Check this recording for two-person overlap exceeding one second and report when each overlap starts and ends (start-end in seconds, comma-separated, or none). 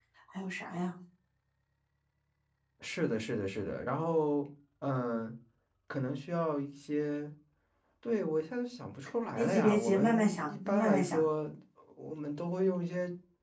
9.4-11.2